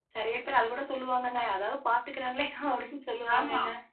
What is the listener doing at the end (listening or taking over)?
taking over